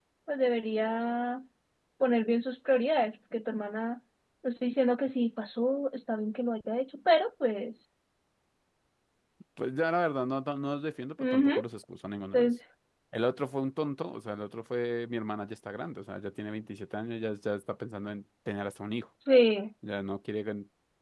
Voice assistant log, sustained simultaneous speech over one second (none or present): none